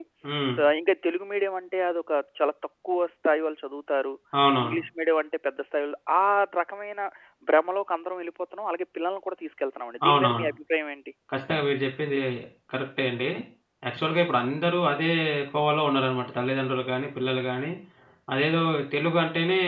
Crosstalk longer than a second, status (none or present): none